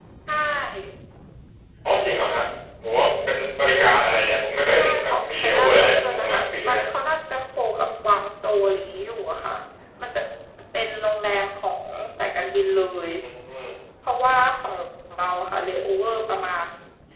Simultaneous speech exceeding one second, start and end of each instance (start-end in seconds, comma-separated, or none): 4.7-6.8